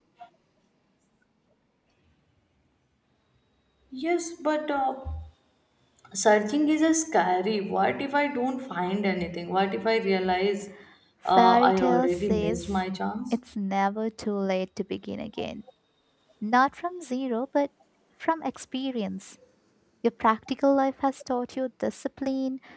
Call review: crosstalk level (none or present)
present